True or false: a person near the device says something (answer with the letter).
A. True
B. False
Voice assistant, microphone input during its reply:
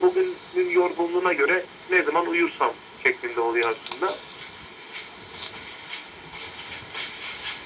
B